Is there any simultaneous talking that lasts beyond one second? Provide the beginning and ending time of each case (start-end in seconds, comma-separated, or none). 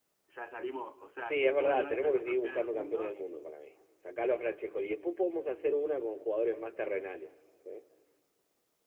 1.2-3.2